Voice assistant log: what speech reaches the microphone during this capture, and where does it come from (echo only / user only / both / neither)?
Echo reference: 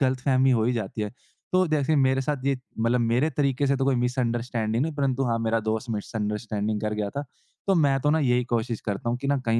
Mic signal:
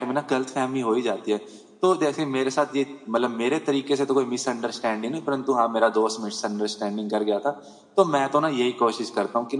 echo only